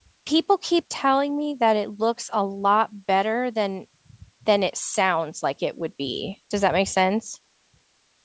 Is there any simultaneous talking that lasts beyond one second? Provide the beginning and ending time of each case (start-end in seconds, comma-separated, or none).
none